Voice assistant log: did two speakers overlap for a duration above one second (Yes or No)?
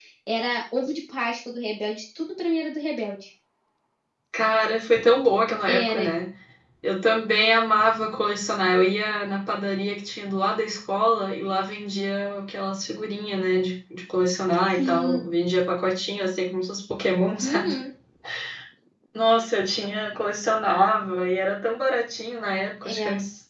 No